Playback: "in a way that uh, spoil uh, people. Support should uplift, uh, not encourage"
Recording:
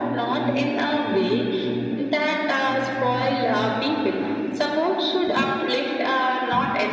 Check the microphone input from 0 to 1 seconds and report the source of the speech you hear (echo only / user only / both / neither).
both